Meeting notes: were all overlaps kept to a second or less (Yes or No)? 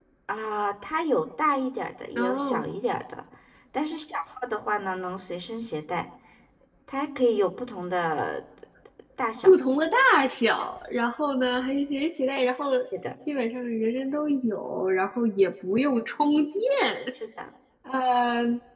Yes